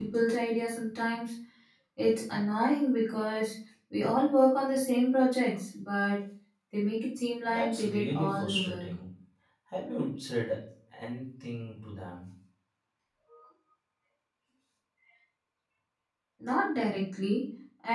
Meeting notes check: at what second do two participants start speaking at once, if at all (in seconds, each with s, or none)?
7.5 s